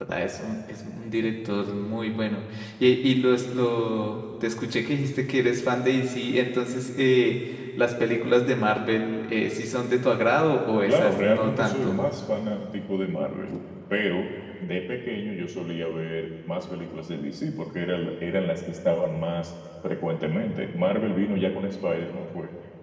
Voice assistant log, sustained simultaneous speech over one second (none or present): present